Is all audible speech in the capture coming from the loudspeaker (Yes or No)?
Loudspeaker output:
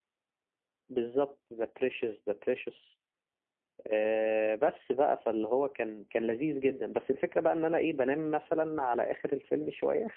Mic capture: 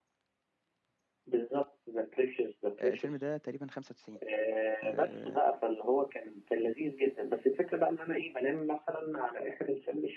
No